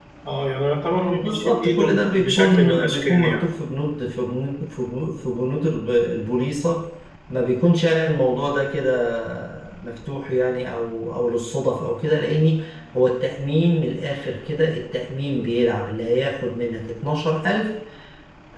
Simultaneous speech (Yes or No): Yes